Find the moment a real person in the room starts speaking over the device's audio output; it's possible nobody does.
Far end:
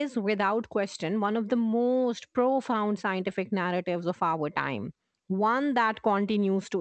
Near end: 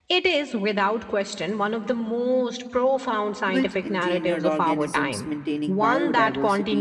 3 s

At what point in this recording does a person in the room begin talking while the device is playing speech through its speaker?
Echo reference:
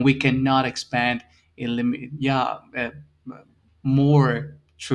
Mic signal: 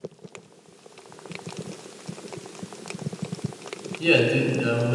4 s

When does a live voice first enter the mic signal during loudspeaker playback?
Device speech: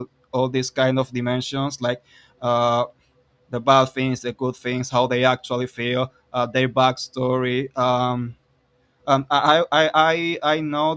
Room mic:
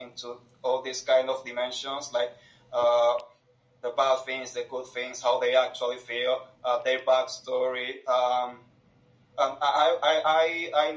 none

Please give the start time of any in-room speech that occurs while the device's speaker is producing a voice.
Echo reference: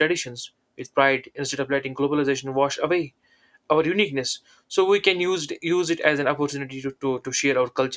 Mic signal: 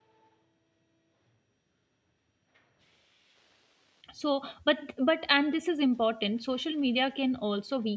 4 s

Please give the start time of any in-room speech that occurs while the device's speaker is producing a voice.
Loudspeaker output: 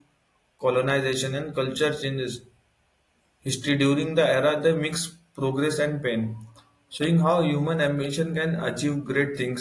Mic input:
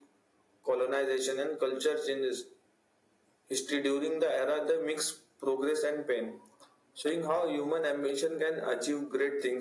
none

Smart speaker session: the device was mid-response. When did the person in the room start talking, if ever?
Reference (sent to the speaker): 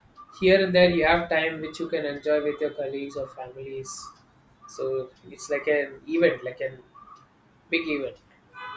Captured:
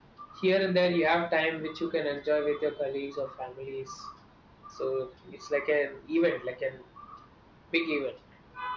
none

